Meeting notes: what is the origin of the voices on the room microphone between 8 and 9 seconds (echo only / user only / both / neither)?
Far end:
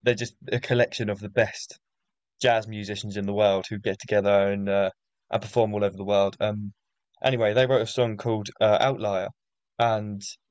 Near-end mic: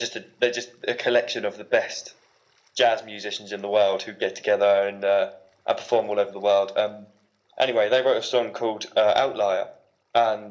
echo only